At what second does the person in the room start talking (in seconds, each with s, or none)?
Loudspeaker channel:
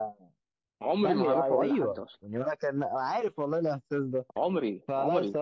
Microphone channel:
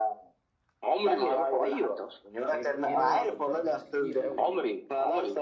2.5 s